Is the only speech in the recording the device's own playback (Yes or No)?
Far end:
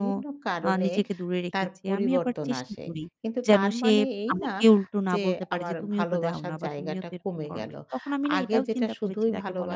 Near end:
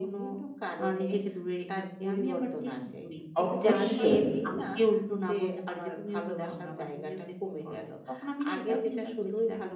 No